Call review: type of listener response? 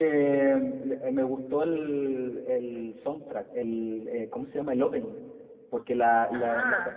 listening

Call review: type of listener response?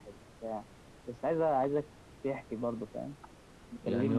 taking over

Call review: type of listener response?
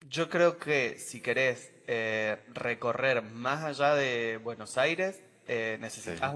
listening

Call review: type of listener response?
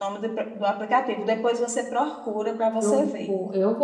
taking over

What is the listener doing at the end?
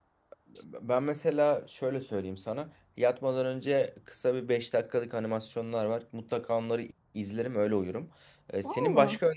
listening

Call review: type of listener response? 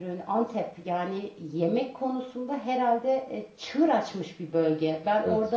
listening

